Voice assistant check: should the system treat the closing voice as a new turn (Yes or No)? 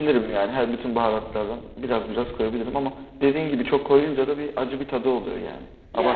Yes